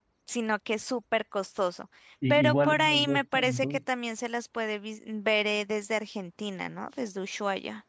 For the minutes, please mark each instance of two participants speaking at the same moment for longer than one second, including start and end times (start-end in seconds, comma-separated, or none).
2.3-3.8